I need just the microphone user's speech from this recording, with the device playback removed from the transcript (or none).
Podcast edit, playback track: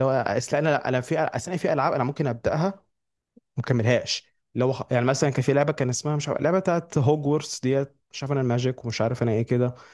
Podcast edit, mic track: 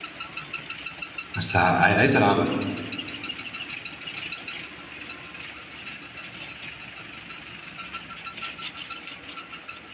بس ع- عايز العبها